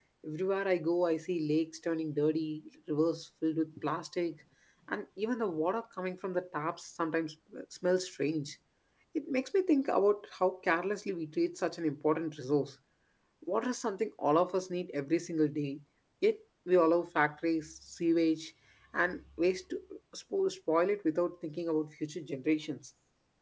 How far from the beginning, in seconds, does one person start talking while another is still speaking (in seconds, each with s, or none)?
none